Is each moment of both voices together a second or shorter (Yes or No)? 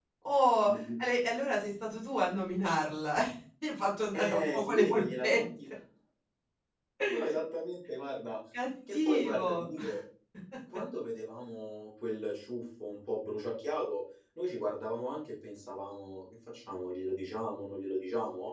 No